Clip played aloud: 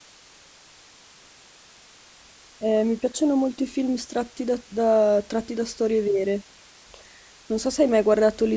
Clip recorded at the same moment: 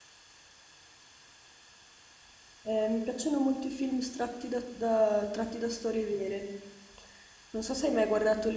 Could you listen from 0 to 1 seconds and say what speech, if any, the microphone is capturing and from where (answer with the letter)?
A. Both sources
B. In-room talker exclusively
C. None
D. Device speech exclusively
C